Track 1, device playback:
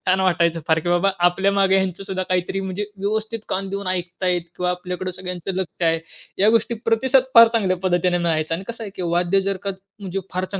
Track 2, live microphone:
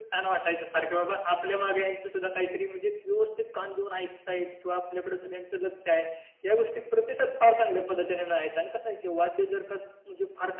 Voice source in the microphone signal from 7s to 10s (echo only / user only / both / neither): echo only